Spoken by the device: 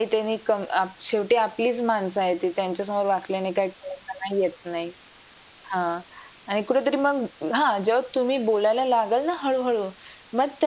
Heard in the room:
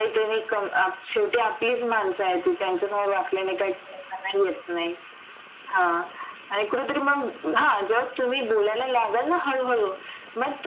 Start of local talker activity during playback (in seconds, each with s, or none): none